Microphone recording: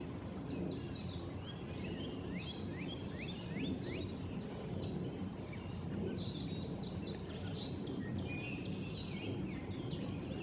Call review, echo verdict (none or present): none